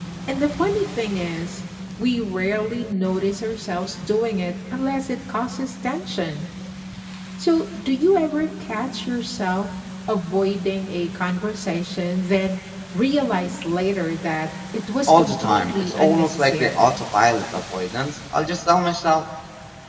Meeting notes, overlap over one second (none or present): present